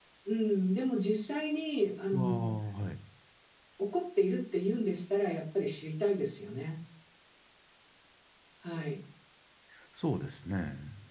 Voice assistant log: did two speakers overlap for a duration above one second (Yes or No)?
No